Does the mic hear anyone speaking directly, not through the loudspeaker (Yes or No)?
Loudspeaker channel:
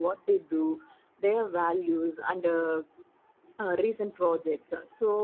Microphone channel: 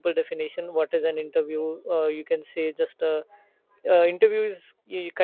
Yes